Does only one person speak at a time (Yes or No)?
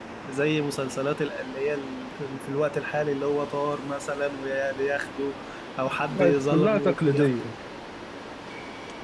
No